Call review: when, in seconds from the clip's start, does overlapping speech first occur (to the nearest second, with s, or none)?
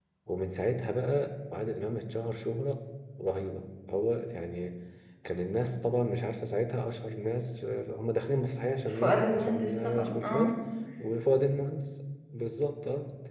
9 s